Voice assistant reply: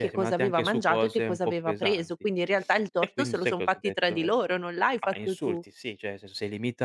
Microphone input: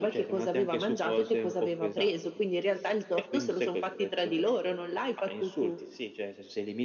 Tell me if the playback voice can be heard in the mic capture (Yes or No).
Yes